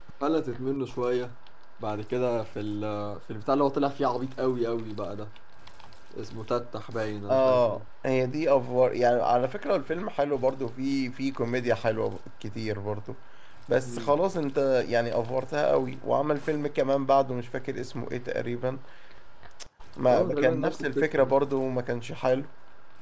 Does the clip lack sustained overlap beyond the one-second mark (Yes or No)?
No